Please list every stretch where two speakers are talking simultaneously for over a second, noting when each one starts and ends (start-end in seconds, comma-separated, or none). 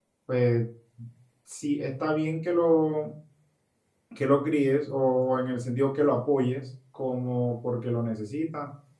none